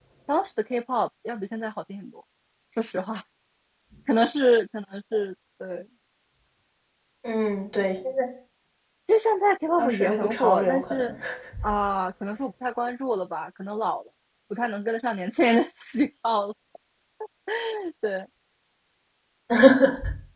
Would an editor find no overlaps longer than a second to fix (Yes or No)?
No